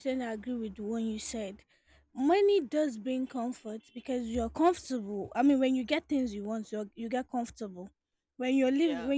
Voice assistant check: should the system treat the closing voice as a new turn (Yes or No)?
No